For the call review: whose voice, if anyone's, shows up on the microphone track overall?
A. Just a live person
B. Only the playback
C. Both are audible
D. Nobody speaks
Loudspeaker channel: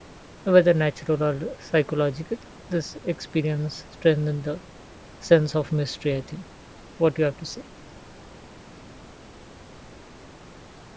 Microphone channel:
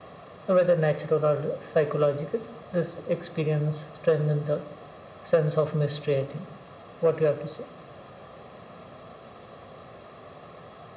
B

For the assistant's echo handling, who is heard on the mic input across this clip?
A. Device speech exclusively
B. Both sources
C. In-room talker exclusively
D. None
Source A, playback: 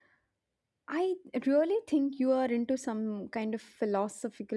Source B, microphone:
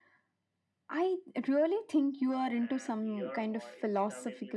B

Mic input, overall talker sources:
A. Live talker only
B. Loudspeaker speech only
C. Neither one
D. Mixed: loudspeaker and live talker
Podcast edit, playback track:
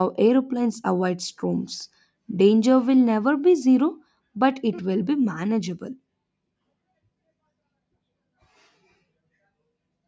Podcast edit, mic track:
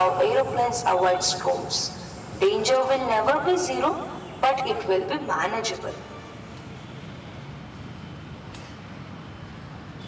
B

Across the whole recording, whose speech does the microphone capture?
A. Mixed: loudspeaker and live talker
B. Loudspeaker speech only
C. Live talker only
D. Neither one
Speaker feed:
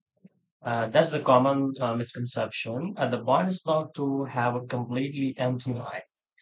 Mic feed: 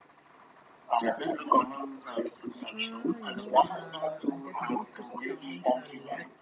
A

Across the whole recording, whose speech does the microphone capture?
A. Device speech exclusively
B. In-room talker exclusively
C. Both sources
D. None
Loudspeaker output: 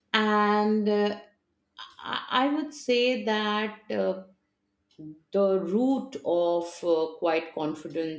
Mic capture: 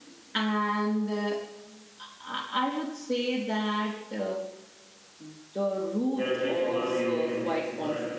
C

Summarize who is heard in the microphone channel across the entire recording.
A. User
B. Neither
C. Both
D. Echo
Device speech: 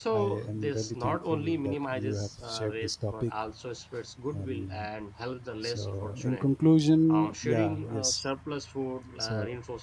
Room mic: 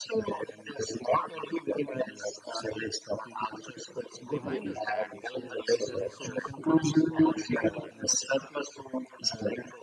C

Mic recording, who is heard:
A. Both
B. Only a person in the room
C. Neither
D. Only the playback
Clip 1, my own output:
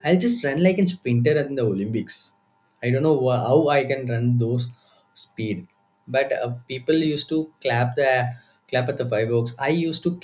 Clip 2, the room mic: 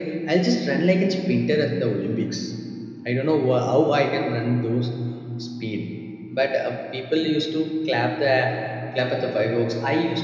D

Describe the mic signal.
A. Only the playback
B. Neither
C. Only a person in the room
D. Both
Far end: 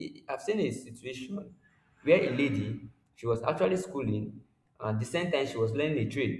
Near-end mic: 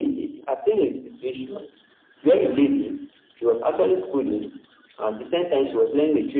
A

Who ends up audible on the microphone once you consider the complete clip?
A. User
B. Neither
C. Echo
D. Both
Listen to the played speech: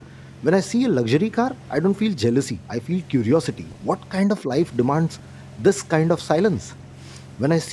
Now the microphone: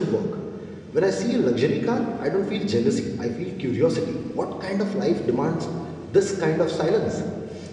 C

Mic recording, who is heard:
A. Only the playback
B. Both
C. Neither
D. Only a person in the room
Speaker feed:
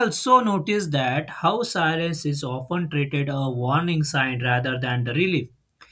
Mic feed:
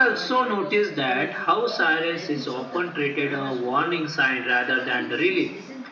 B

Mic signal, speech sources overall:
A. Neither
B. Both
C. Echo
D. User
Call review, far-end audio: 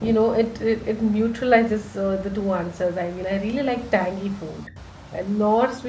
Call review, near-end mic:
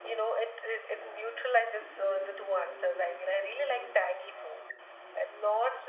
B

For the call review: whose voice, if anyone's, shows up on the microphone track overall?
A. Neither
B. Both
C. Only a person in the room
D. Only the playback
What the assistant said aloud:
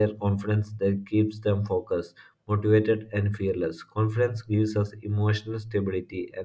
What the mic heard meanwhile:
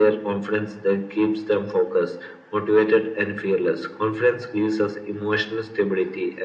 D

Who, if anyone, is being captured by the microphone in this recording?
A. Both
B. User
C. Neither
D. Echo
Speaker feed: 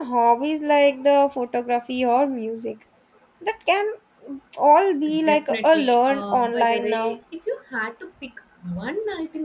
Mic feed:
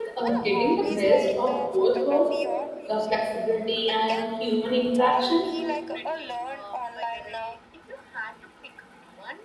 A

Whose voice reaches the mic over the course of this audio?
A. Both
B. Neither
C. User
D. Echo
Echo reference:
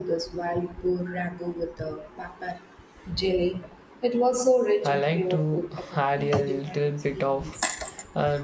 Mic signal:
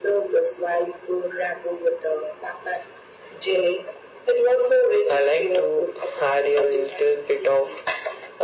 D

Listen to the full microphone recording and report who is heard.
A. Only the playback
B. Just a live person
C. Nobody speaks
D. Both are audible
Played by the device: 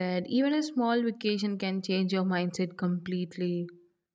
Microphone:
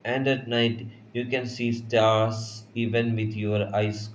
B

